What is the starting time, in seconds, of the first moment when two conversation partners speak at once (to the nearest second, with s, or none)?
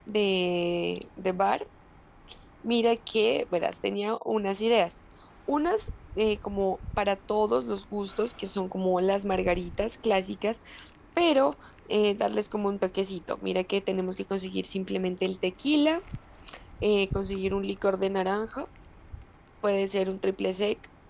none